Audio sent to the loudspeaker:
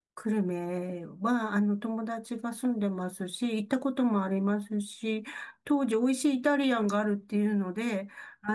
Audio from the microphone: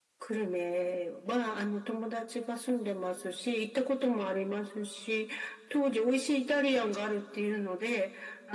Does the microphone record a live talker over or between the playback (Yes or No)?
No